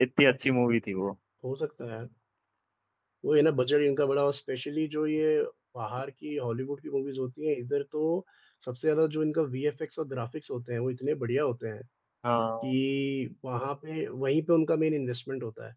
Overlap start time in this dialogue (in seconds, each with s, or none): none